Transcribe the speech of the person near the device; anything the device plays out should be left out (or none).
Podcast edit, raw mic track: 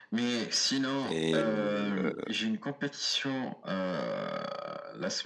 Et euh,